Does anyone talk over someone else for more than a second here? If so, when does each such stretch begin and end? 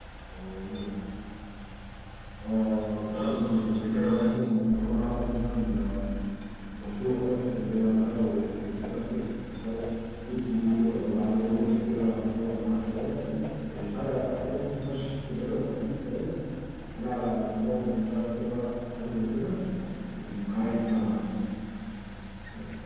3.1-4.7

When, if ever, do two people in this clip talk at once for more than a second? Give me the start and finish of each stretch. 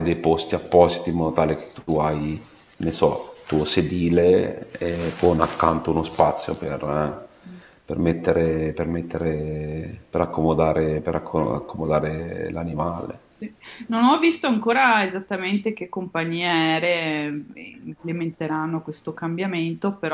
none

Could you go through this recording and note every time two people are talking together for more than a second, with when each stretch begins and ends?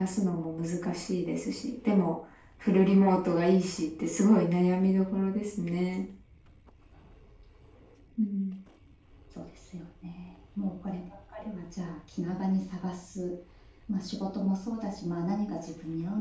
none

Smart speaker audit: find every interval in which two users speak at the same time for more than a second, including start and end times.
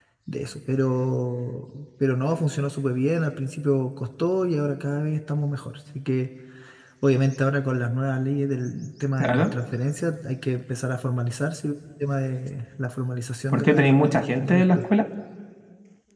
13.5-14.9

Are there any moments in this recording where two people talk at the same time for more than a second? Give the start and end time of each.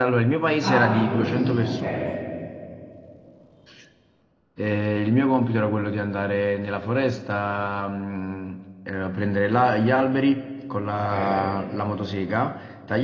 0.6-2.0

